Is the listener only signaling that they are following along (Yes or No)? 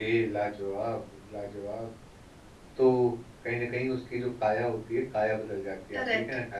No